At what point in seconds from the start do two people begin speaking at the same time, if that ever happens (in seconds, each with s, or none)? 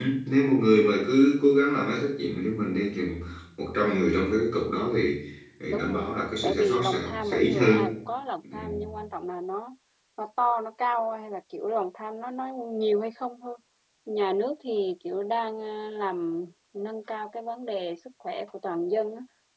5.7 s